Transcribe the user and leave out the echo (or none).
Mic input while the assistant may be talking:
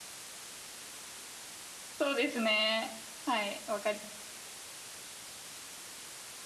そうですね。はい。わかり、